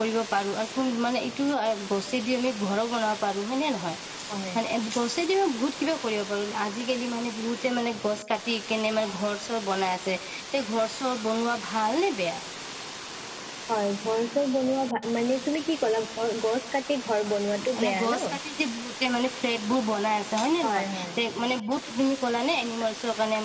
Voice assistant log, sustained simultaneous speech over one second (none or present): none